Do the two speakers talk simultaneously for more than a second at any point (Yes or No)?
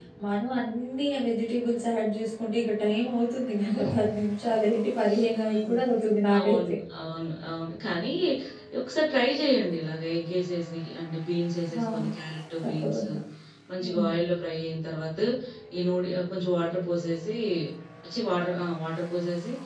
No